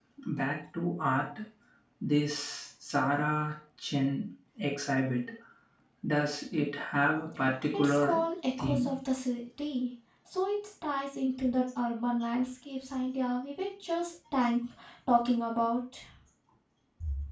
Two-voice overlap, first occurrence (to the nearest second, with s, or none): 8 s